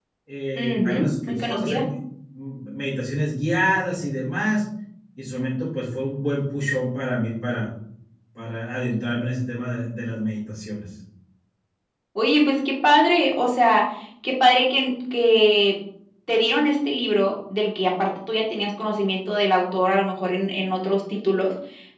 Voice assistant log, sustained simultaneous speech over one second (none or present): present